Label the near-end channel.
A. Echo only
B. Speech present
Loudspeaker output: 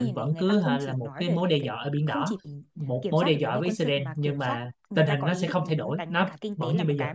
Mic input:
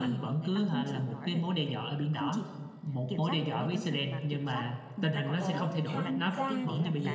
B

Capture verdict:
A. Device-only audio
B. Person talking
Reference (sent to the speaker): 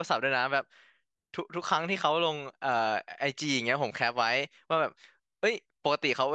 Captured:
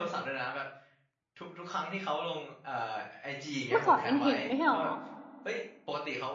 B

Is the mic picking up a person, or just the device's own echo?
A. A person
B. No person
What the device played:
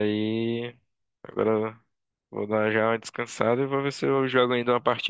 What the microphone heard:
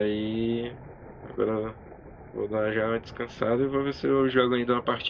B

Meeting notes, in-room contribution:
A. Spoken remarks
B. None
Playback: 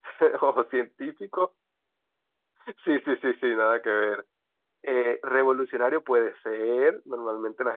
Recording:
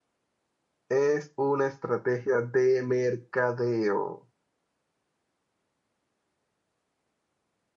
A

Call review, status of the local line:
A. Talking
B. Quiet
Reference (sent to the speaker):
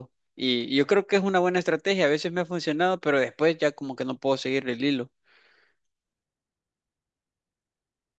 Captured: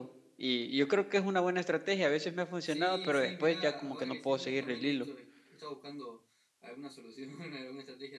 A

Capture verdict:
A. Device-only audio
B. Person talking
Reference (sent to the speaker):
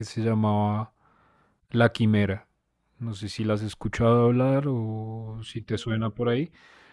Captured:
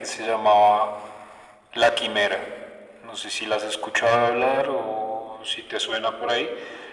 A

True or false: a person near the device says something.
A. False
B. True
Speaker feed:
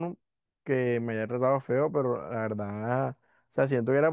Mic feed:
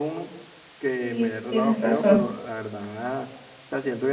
B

